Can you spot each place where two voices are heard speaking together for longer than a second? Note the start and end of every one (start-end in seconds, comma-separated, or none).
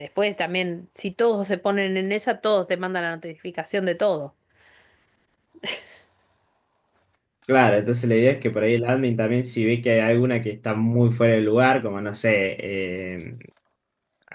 none